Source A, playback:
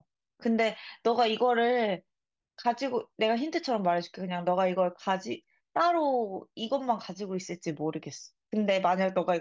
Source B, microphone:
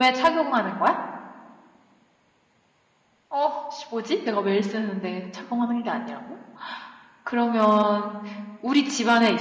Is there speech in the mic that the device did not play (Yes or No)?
Yes